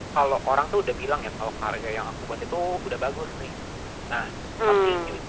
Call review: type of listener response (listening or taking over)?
listening